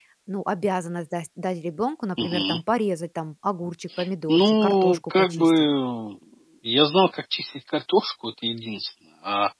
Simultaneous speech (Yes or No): Yes